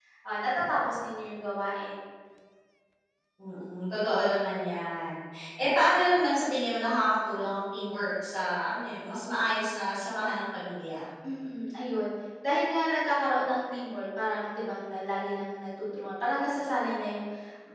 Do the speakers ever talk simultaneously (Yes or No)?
No